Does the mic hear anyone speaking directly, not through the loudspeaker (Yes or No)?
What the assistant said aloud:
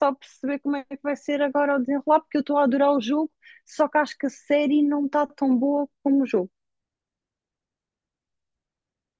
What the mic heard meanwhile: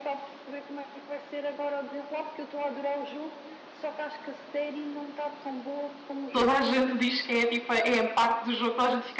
Yes